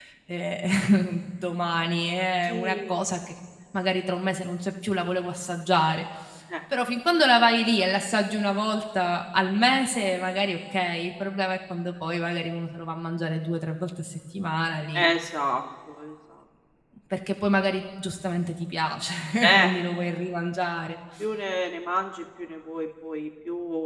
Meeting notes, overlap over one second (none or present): none